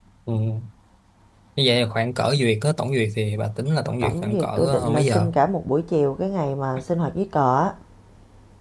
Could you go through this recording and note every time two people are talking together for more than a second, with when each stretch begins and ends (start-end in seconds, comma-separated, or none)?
4.0-5.3